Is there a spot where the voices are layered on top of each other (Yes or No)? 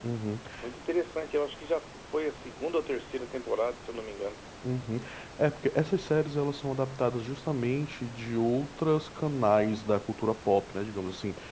No